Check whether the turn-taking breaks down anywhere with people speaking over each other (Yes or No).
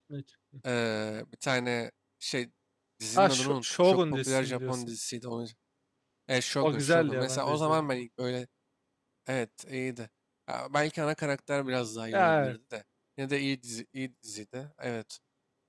Yes